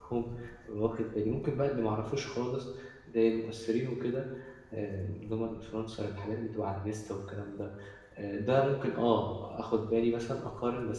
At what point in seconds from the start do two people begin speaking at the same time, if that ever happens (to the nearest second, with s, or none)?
none